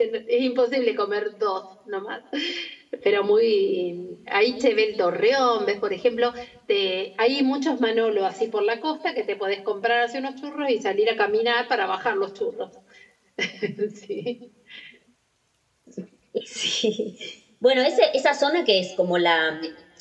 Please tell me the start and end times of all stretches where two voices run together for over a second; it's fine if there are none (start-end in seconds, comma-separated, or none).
none